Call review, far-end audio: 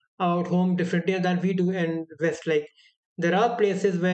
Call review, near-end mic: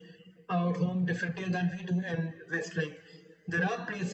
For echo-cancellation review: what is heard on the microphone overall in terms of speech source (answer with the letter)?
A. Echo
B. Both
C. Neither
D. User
A